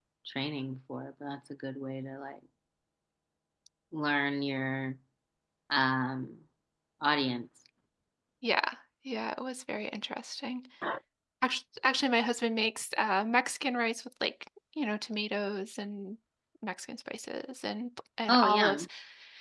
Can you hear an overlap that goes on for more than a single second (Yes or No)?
No